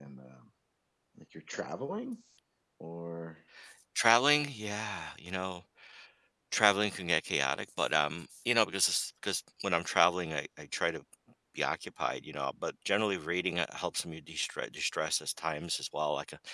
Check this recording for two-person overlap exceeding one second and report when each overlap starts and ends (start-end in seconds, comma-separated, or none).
none